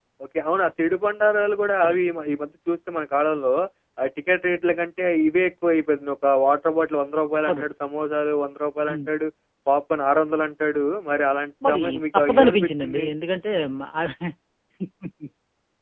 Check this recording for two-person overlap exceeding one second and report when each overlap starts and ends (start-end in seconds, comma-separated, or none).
11.7-13.0